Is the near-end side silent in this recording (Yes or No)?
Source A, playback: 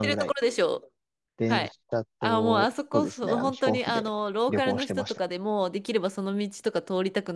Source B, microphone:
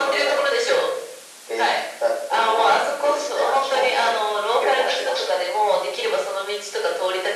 Yes